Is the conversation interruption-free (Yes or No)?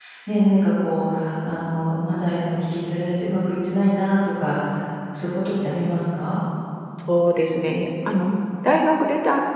Yes